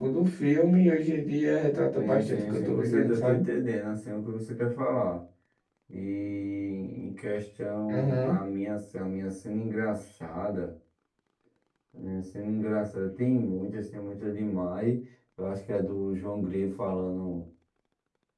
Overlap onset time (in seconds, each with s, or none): 2.0 s